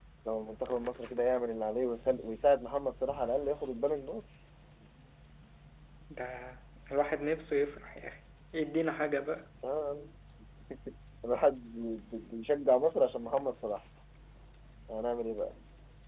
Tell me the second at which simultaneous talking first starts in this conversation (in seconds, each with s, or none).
none